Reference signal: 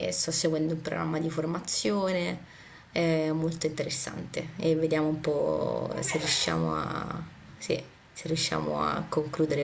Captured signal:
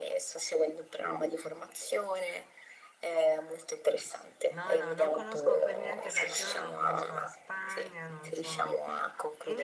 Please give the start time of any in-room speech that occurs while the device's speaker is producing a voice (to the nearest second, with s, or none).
5 s